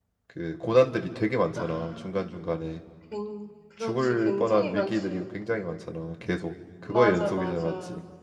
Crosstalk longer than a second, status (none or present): present